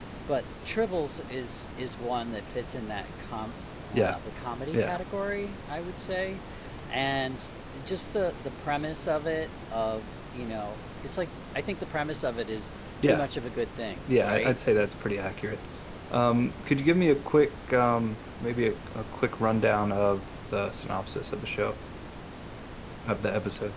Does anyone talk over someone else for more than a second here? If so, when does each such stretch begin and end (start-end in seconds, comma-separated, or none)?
none